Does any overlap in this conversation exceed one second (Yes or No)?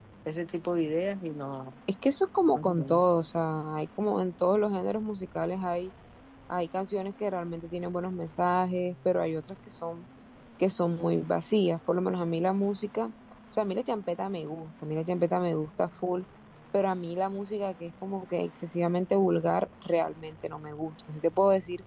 No